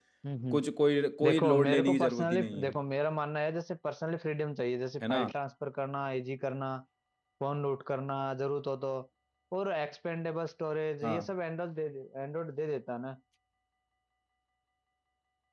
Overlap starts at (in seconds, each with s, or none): 1.2 s